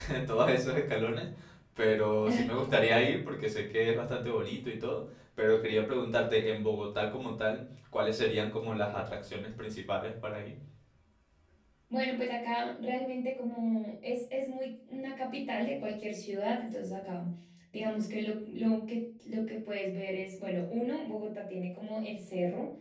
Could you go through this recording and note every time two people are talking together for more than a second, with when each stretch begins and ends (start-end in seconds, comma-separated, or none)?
none